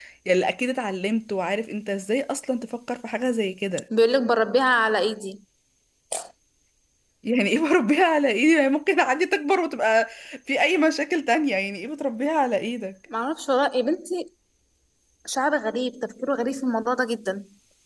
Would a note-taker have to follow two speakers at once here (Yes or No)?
No